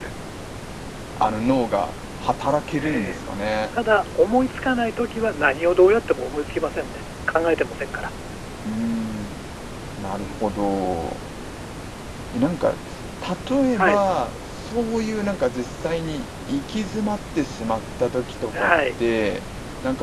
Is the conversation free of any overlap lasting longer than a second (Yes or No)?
Yes